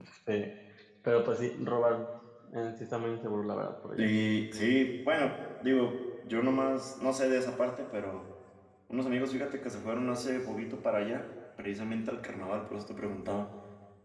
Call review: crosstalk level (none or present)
none